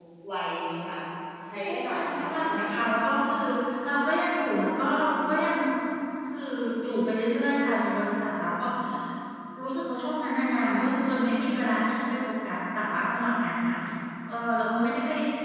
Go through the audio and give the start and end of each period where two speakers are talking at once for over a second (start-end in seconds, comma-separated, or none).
1.7-2.9